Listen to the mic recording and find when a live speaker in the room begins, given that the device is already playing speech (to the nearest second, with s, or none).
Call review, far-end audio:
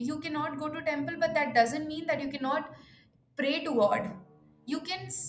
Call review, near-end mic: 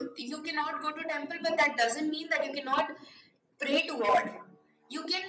none